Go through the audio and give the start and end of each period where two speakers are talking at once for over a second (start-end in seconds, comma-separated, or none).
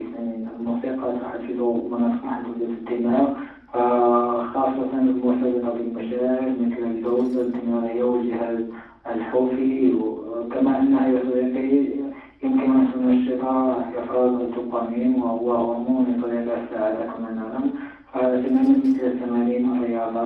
none